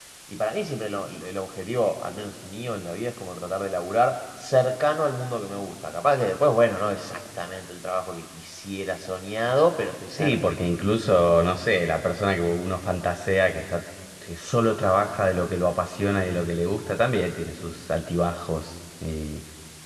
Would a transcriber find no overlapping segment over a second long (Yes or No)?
Yes